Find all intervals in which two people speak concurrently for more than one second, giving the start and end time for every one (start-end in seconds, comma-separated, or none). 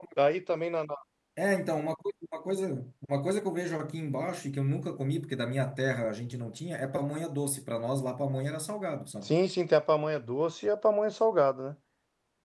none